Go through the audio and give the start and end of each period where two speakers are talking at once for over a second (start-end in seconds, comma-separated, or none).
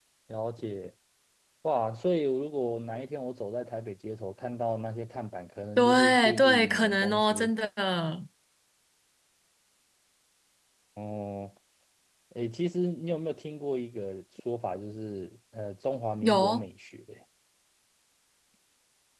5.8-7.5